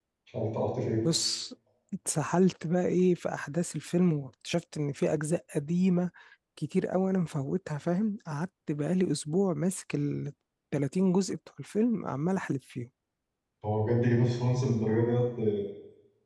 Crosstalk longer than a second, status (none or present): none